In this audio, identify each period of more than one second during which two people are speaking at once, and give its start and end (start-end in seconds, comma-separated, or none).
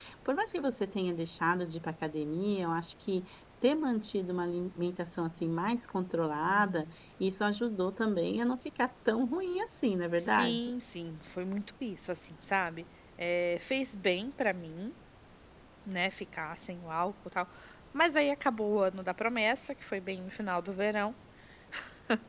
none